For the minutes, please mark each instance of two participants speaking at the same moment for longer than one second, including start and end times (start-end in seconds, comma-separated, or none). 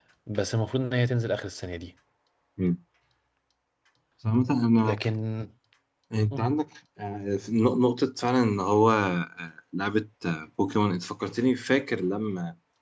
none